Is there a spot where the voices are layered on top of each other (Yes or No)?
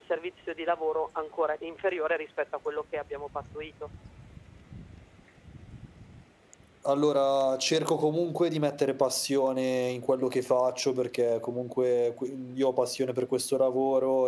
No